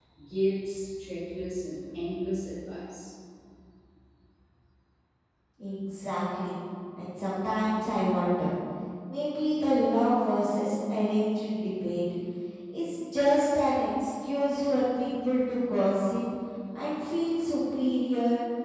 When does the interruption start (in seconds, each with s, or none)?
none